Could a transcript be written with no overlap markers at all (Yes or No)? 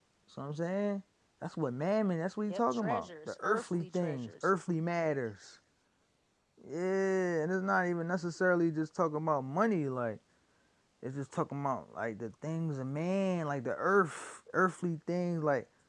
No